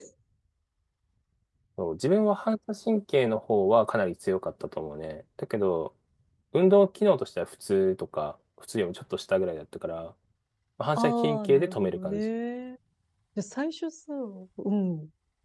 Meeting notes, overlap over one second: present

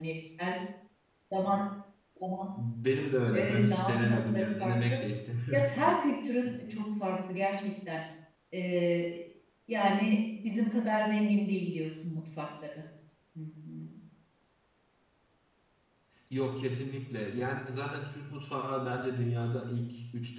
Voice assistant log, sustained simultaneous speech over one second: present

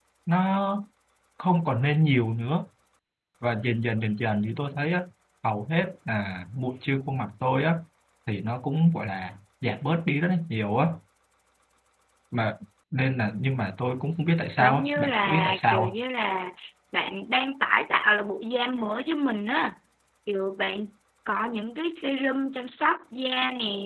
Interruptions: present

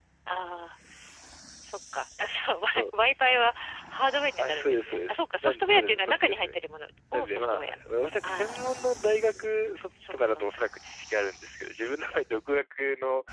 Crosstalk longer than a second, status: present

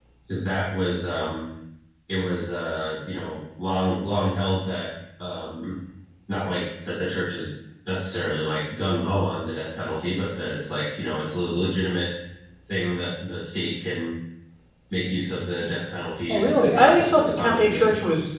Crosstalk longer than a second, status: present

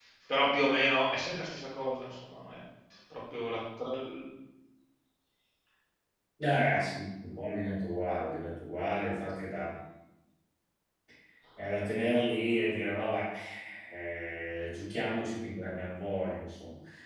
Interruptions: none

